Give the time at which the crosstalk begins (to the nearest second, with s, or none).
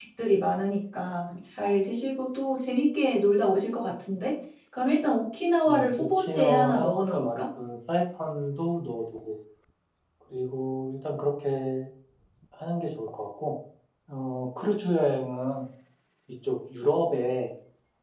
6 s